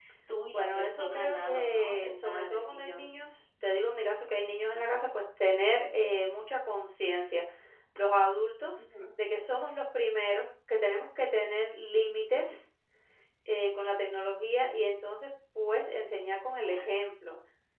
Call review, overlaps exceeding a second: present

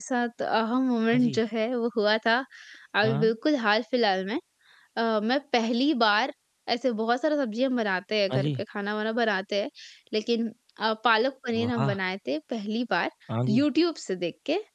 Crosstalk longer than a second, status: none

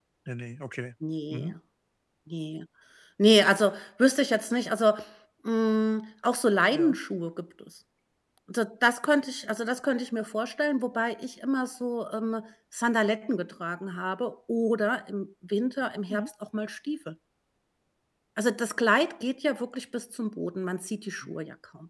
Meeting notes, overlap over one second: none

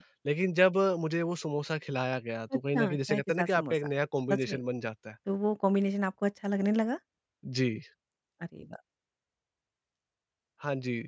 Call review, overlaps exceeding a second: present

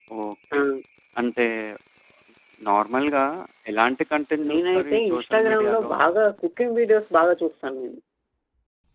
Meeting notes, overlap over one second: present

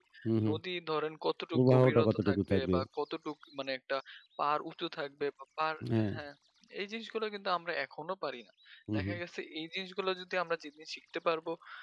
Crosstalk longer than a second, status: present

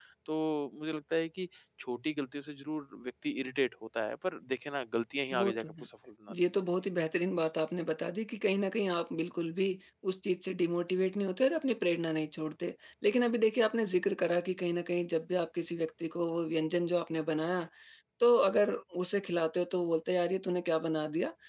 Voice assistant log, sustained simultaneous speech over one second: none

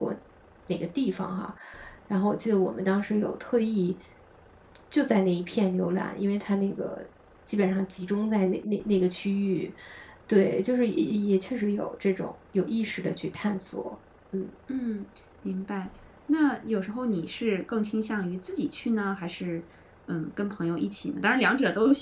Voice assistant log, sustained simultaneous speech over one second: none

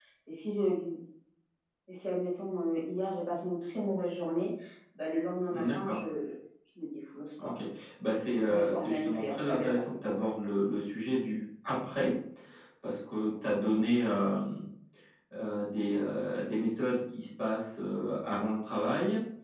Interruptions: present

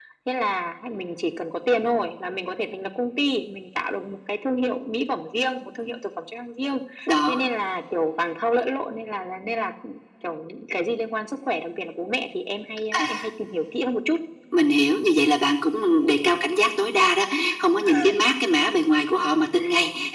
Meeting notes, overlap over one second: none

